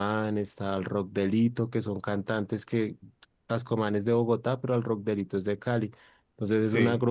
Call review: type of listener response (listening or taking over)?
listening